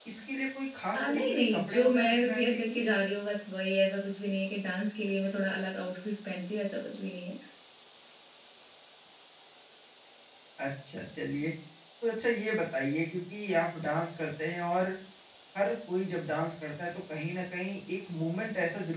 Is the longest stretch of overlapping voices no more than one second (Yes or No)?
No